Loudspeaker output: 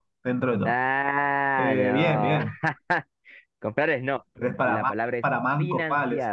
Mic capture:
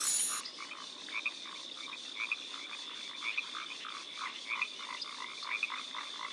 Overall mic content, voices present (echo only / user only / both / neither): neither